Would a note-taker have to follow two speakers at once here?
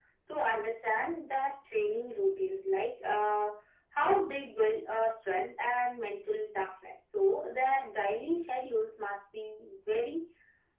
No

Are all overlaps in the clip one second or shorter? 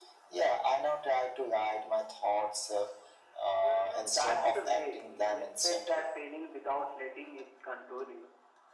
No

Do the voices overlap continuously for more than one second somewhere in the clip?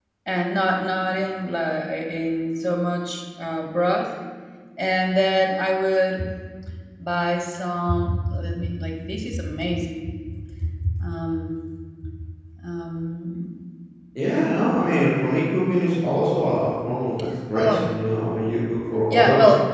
No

